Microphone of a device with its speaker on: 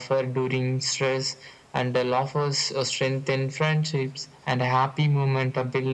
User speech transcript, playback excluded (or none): none